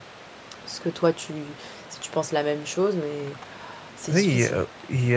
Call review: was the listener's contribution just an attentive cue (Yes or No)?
No